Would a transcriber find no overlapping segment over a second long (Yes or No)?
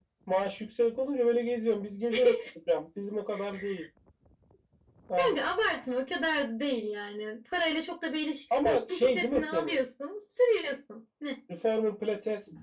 No